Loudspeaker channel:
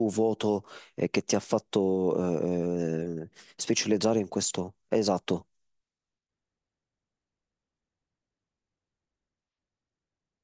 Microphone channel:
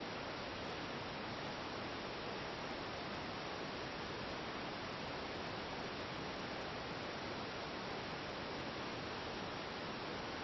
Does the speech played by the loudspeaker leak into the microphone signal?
No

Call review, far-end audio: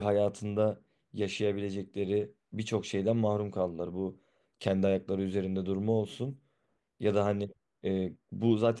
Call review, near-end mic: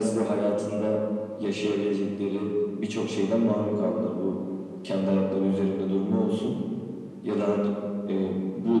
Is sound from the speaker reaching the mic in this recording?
Yes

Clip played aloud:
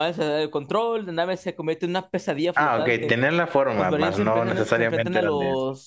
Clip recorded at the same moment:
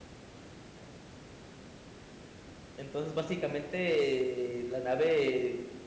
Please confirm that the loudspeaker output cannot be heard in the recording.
Yes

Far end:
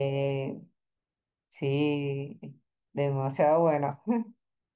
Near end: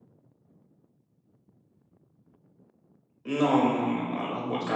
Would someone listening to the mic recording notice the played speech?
No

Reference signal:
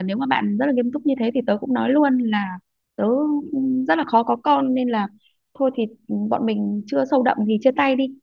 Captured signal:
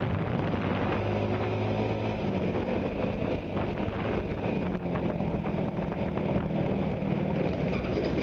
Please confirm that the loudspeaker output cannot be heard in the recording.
Yes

